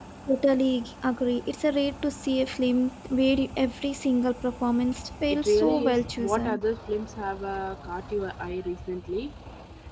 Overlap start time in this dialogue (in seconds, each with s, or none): 5.3 s